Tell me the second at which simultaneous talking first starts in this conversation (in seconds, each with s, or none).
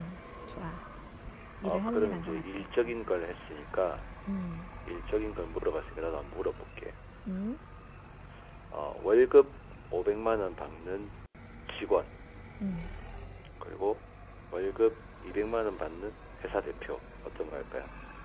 1.6 s